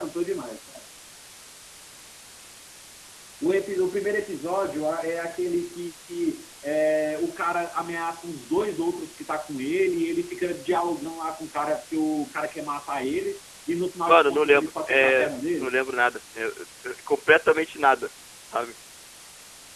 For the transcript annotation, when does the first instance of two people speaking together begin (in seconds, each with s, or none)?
14.1 s